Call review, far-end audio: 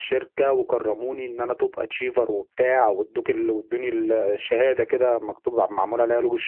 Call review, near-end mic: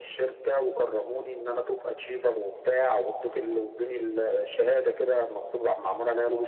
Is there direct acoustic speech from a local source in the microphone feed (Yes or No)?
No